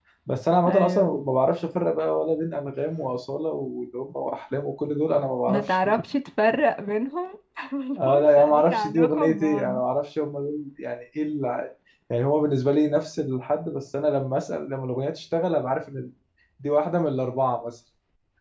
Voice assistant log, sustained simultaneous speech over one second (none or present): present